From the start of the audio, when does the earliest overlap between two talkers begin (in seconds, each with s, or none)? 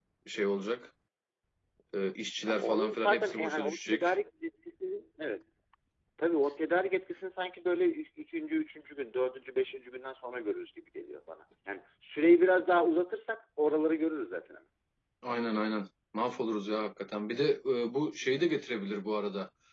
2.4 s